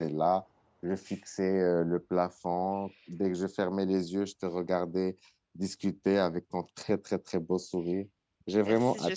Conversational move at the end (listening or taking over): taking over